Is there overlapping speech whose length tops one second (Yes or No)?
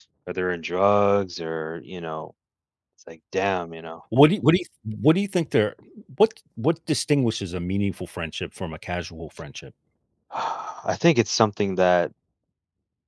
No